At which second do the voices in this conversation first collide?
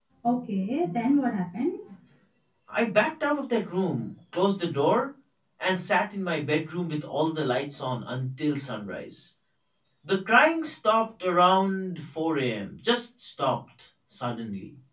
none

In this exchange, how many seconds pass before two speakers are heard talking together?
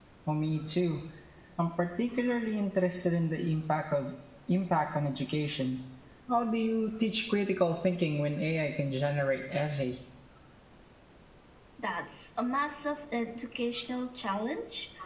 none

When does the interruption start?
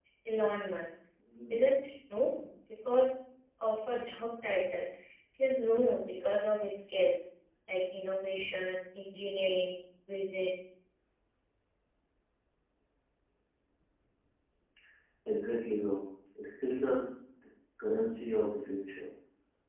none

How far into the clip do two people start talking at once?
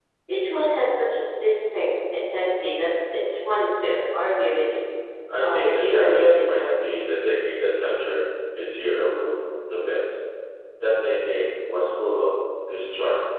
5.4 s

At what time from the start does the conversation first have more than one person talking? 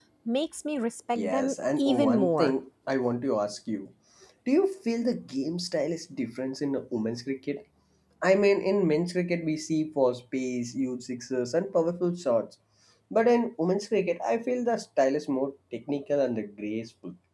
1.1 s

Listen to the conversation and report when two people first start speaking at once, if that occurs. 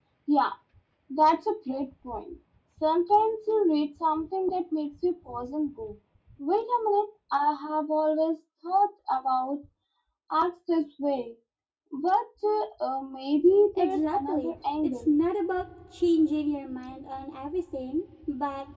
13.8 s

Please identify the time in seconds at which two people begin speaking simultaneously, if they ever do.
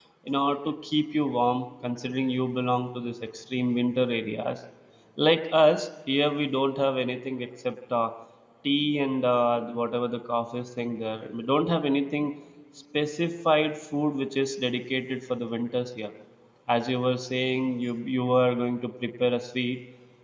none

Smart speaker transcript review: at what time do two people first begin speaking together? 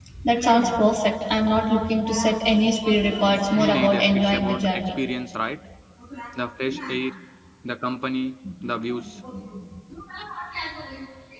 3.6 s

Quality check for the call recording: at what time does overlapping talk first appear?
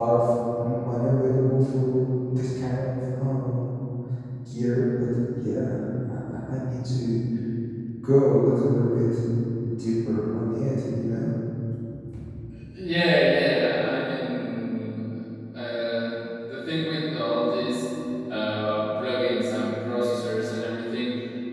none

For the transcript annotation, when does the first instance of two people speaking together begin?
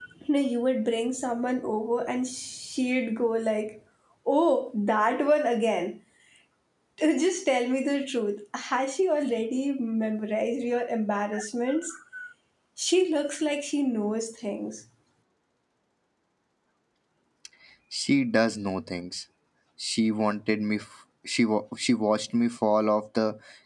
none

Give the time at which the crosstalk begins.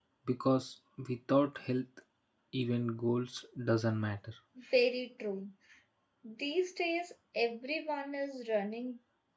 none

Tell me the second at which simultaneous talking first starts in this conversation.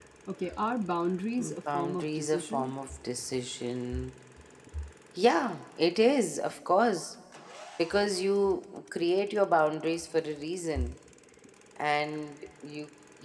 1.4 s

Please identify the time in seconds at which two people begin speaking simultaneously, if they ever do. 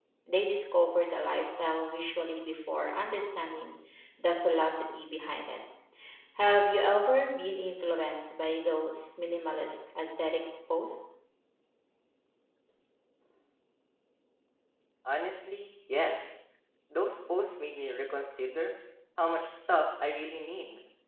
none

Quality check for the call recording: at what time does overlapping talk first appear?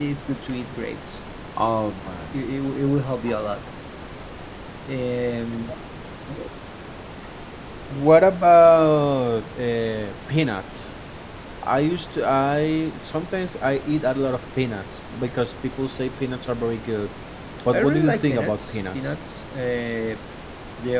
17.7 s

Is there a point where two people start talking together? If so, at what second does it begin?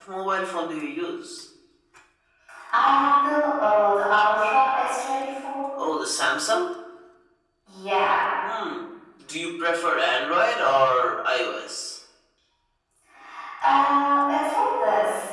none

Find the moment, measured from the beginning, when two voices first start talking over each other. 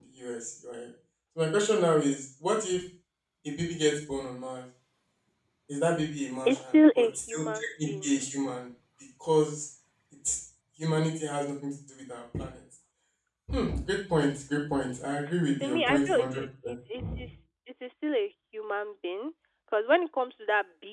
6.5 s

